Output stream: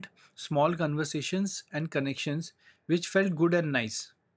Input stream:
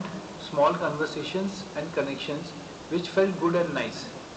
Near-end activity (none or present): none